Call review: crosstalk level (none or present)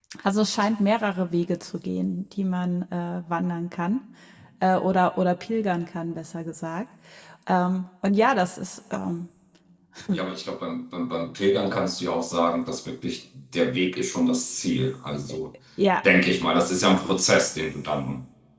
none